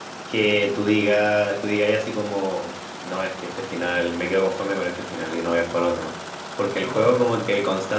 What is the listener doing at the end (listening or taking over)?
listening